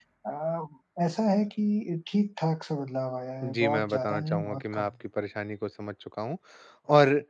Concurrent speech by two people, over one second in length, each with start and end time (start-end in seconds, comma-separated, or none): 3.5-4.9